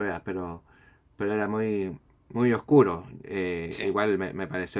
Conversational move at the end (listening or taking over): listening